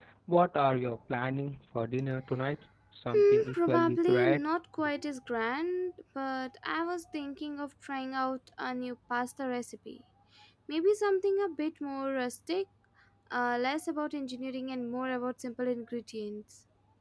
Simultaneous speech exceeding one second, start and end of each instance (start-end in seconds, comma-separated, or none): 3.1-4.4